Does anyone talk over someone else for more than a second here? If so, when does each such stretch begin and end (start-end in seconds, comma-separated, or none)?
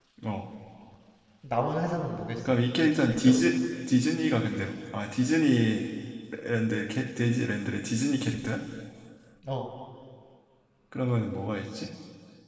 none